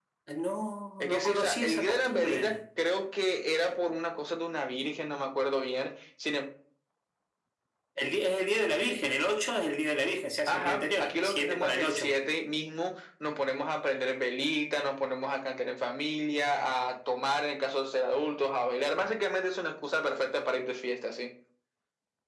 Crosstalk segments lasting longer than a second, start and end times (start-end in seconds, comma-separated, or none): 1.1-2.6, 10.5-12.2